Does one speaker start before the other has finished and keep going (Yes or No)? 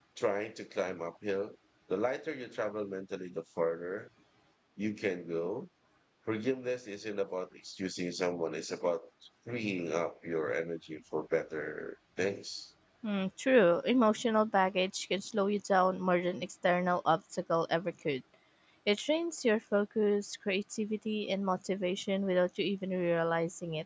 No